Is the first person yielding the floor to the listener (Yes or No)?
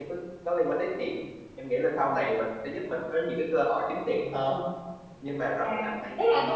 Yes